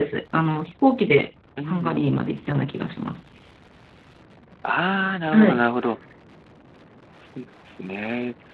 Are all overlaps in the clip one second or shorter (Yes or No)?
Yes